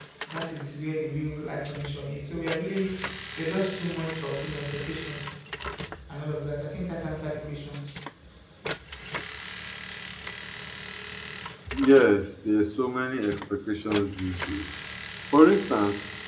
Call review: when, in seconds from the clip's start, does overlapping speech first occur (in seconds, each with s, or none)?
none